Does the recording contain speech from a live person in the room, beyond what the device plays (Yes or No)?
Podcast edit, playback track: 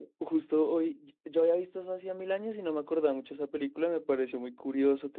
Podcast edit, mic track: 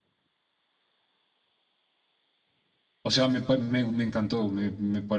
Yes